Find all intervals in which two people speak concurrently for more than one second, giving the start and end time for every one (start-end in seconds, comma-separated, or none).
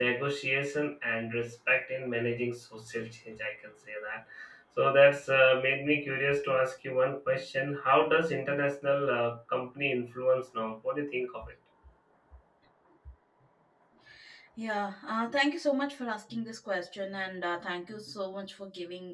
none